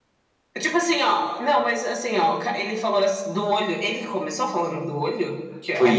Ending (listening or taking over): taking over